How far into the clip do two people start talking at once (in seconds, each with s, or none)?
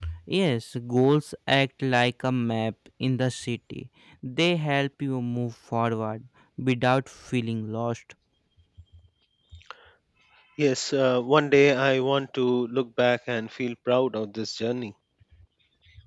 none